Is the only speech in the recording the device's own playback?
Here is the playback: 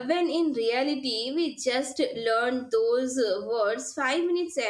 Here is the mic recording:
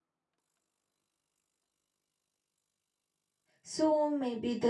No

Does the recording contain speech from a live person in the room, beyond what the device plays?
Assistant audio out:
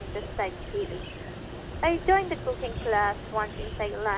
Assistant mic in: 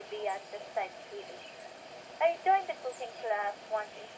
No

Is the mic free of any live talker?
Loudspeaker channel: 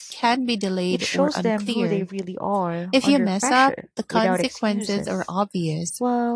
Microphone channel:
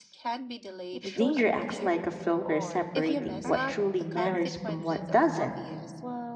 No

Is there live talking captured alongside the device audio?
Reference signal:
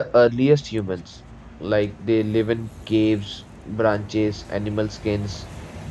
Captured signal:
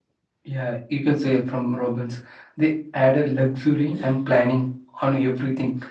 Yes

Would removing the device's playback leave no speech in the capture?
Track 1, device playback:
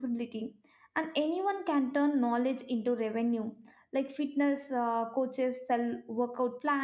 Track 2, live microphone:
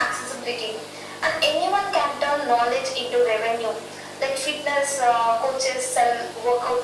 Yes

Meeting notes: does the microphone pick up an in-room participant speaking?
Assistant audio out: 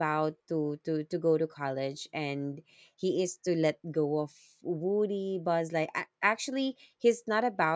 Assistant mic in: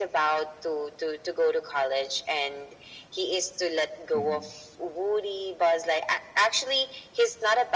Yes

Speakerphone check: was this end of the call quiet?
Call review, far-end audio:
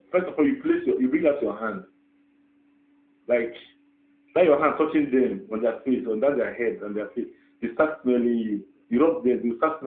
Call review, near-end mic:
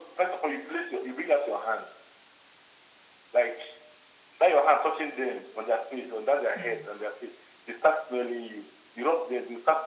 No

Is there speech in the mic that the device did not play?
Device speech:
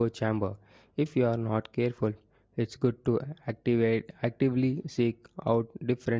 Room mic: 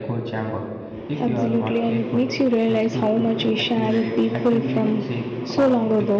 Yes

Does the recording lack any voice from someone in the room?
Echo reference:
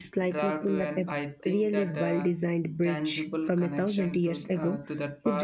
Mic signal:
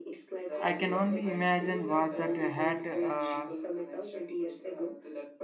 No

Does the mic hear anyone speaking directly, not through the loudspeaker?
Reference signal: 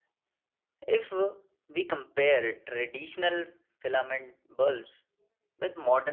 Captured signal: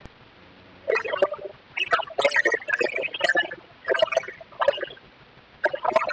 No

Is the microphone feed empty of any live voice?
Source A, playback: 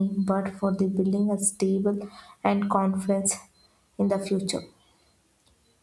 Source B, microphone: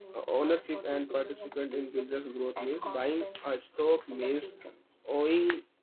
No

